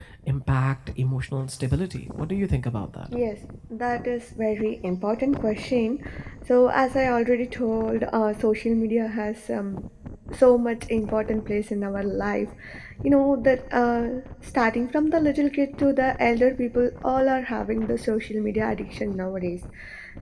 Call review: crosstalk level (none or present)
none